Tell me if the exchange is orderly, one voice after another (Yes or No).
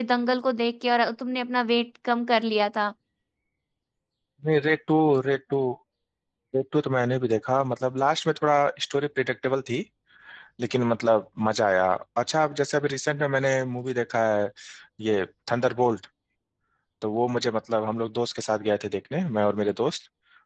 Yes